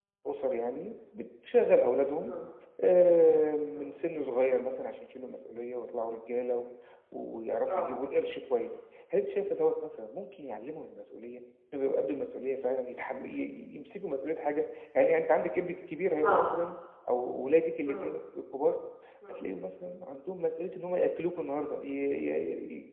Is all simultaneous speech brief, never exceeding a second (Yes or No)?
Yes